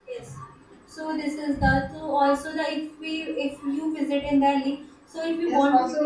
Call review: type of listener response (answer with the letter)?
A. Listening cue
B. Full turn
B